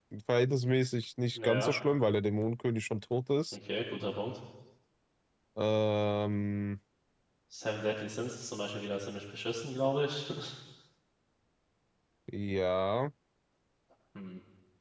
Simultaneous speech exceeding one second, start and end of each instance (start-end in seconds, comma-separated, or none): none